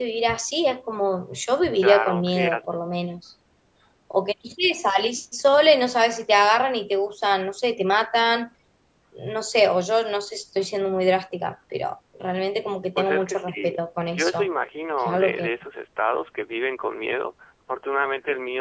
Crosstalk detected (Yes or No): Yes